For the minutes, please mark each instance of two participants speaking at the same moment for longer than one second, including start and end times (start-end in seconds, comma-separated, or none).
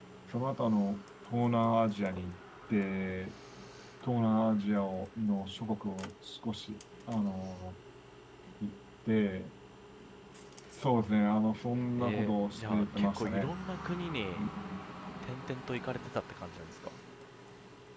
12.0-13.5